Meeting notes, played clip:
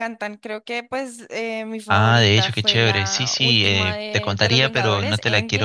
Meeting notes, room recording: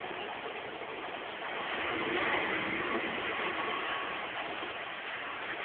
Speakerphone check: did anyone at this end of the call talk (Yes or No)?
No